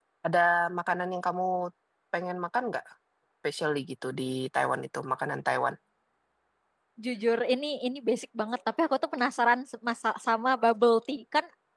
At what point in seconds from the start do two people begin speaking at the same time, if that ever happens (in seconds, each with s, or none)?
none